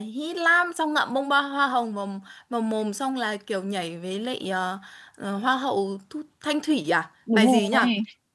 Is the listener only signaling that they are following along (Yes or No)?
No